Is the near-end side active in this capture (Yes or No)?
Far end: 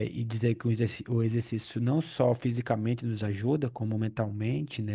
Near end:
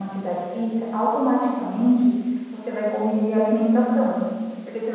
Yes